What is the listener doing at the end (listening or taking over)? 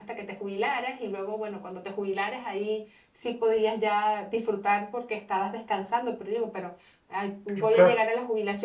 listening